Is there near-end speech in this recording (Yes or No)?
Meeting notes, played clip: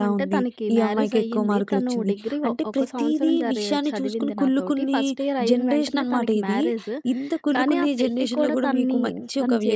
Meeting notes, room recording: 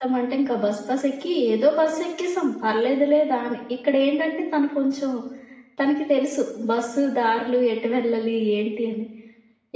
Yes